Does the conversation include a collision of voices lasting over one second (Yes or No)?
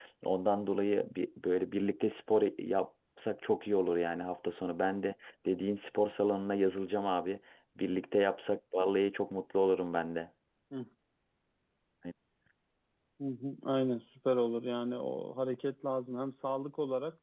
No